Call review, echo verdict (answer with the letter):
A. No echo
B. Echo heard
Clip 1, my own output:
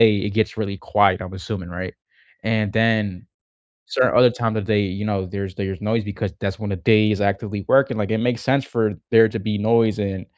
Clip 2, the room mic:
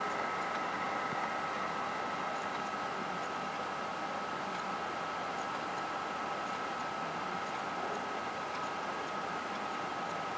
A